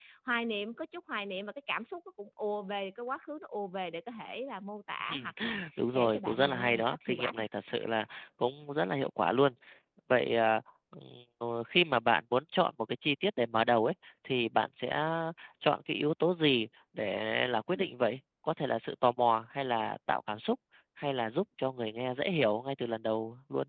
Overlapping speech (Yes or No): Yes